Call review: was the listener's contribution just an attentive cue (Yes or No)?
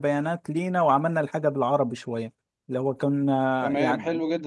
No